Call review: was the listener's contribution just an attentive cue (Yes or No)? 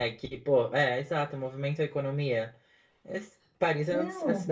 Yes